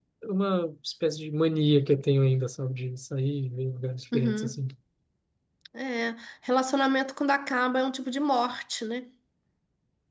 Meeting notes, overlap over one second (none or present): none